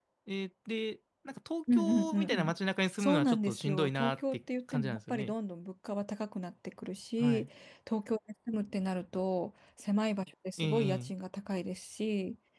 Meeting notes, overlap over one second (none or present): present